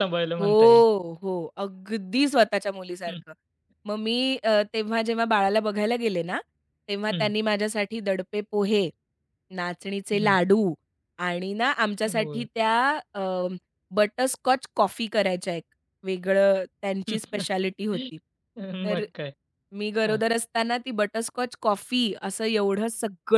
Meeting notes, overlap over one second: none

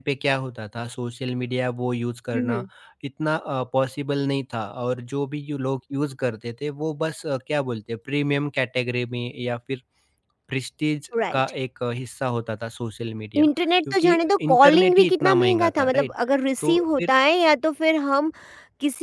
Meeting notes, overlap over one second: present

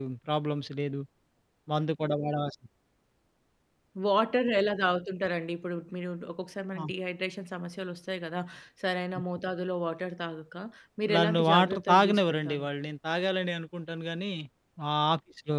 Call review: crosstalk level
present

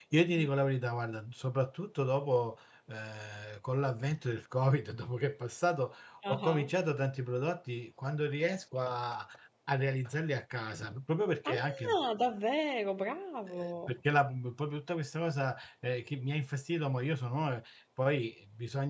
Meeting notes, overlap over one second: none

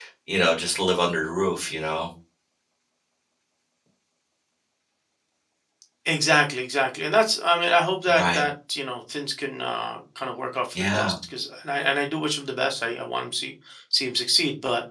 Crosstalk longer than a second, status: none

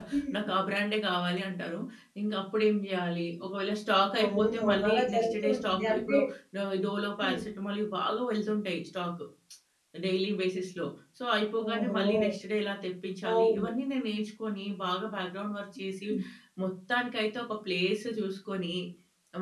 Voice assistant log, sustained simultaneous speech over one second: present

